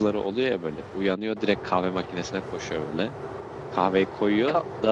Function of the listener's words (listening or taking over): listening